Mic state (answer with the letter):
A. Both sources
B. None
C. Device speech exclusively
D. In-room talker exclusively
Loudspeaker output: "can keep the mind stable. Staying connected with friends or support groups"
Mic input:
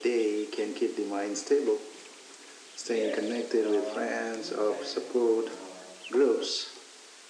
A